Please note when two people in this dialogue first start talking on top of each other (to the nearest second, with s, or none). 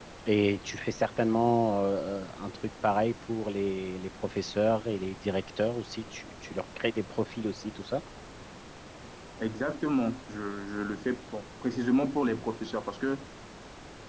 none